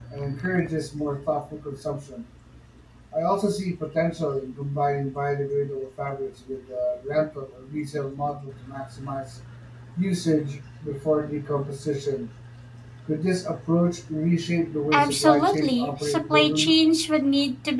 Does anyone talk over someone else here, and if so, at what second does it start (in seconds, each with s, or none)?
14.9 s